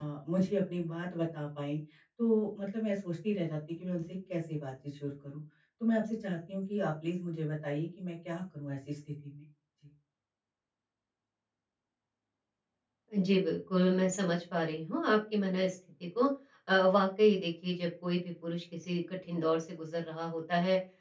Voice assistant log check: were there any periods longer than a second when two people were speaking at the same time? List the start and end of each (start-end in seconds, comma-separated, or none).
none